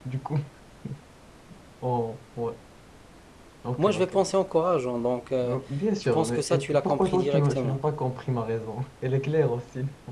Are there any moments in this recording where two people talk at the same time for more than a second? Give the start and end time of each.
6.0-7.8

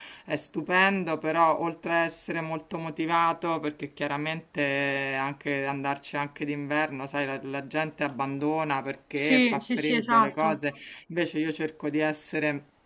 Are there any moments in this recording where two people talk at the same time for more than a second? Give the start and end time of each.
9.2-10.6

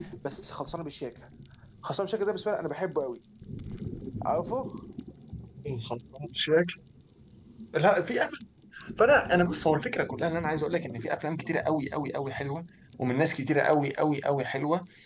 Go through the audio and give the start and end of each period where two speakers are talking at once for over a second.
none

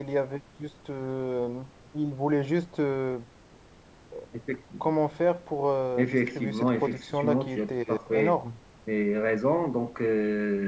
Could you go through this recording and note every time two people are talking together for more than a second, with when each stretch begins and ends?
6.0-8.4

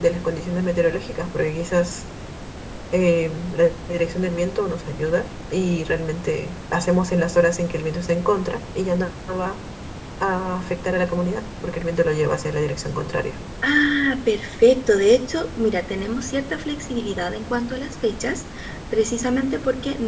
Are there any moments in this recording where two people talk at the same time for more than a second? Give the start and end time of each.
none

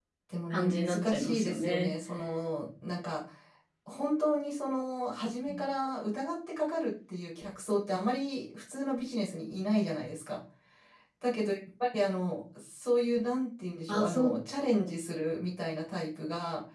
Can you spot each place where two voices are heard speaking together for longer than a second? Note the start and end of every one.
0.5-1.9

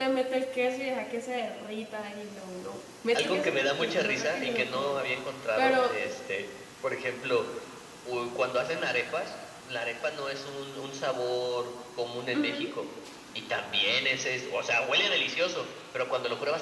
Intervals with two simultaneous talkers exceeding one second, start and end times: 3.1-5.0

